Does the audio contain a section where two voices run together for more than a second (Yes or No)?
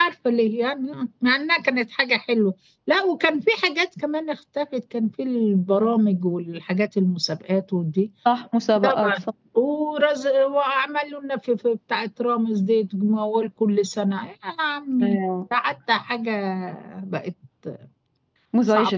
No